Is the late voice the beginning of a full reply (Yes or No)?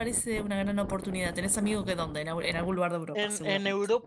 Yes